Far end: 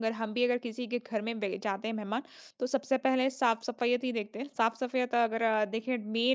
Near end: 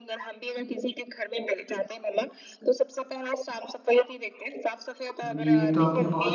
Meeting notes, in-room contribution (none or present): present